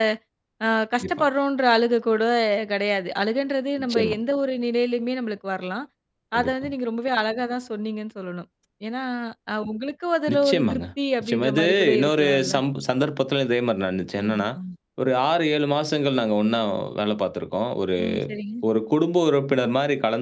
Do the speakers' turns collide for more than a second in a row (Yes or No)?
Yes